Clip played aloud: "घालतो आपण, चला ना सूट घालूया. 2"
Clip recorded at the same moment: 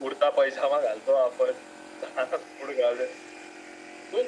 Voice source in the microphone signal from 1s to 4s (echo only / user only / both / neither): echo only